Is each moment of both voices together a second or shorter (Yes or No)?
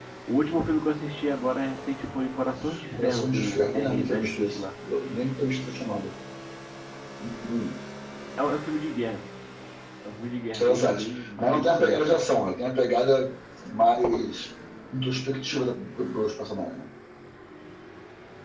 No